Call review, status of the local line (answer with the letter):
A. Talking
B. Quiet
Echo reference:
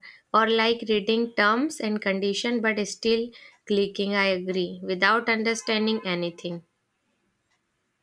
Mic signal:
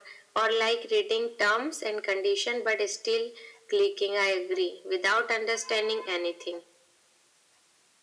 B